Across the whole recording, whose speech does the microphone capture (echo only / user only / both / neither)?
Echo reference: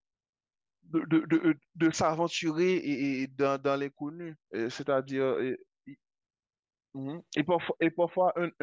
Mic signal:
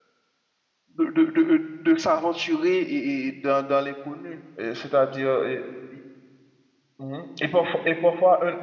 echo only